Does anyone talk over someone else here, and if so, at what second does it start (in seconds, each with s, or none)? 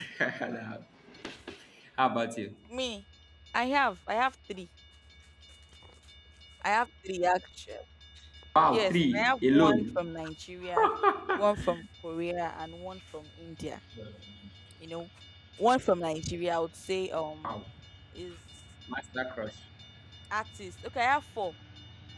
8.7 s